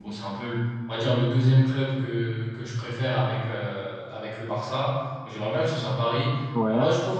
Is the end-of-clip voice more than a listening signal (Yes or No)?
No